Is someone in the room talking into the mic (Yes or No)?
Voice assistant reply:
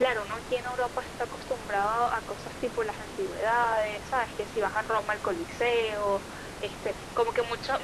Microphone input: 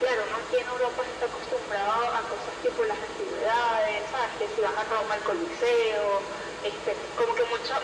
No